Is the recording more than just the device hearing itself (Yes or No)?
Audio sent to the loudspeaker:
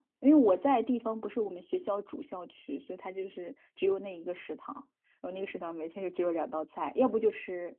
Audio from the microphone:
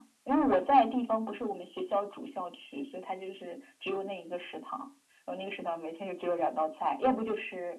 No